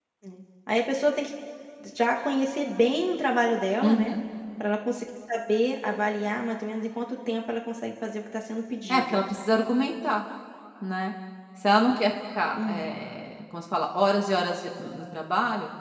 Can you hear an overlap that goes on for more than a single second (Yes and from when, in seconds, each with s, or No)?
No